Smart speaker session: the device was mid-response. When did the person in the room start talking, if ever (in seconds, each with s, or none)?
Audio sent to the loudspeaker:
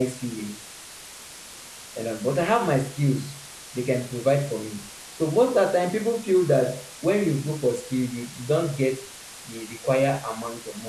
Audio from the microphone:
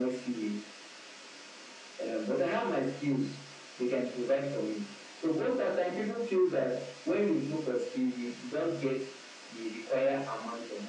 none